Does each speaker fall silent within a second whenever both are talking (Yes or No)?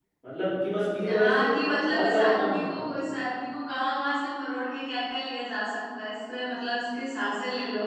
No